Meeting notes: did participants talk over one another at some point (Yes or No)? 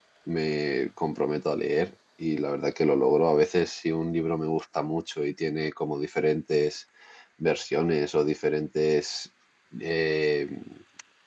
No